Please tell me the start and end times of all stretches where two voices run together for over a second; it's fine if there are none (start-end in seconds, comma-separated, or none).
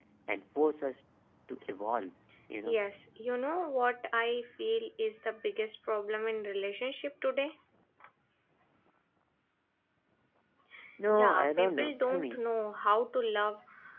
11.2-12.4